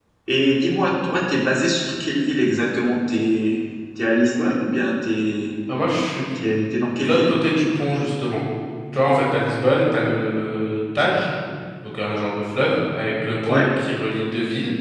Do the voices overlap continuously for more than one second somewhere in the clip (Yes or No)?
No